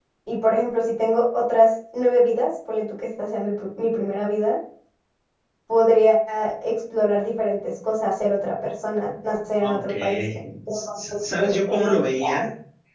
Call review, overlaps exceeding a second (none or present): present